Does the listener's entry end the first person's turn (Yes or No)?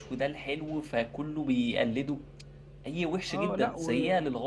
Yes